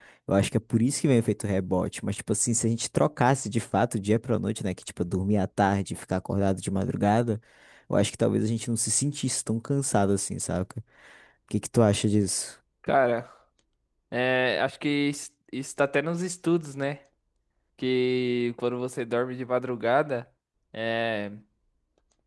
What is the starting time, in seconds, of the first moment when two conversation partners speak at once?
none

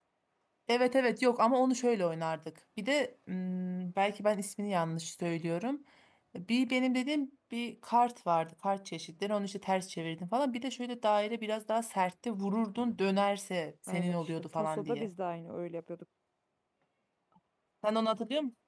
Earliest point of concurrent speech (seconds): 13.9 s

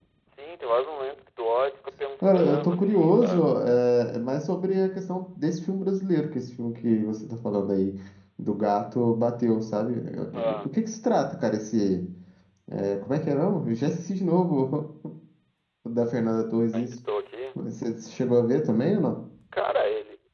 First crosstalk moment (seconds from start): 2.2 s

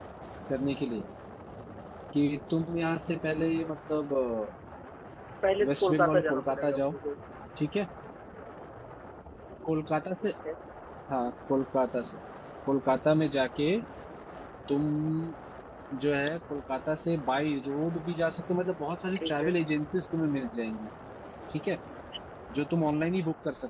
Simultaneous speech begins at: 5.7 s

